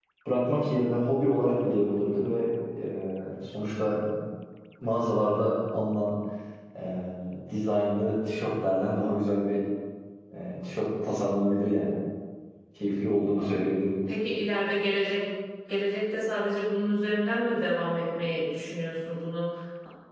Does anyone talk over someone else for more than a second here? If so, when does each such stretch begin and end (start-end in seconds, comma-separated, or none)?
none